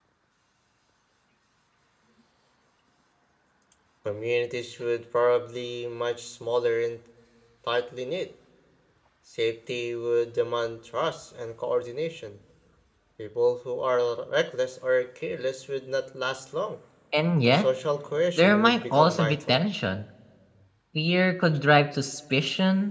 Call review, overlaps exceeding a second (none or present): present